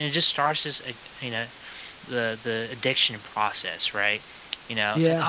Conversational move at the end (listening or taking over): listening